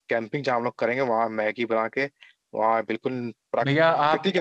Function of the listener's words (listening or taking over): taking over